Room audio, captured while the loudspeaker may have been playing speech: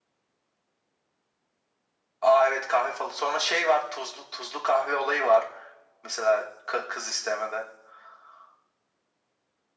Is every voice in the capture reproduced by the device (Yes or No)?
Yes